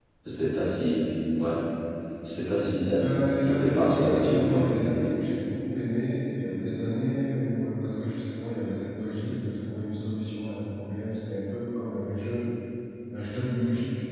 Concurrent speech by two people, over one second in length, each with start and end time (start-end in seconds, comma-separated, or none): 3.4-4.7